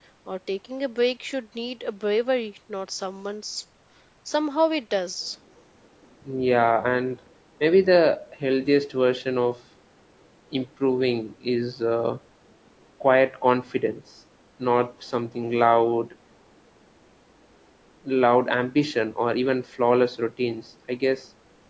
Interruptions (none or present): none